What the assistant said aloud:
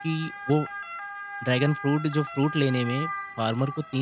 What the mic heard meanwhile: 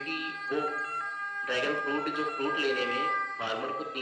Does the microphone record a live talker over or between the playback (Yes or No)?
No